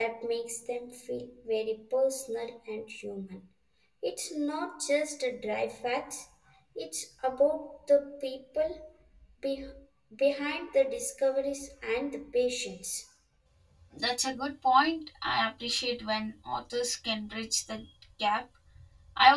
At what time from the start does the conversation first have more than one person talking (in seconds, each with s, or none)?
none